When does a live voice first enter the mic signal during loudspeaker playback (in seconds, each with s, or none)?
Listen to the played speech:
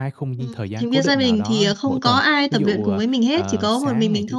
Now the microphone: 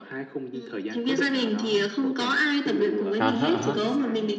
3.2 s